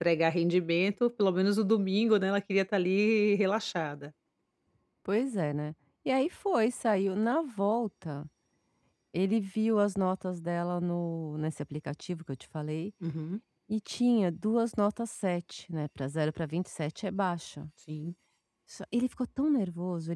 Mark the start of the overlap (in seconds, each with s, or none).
none